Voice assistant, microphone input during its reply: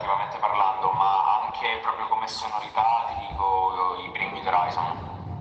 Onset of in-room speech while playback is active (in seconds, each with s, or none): none